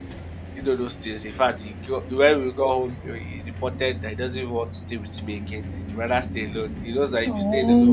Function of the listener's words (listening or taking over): listening